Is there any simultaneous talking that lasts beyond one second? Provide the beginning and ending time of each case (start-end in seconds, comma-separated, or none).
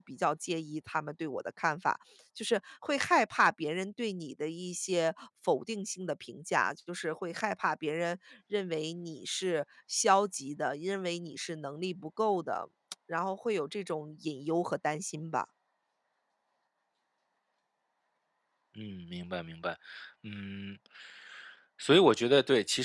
none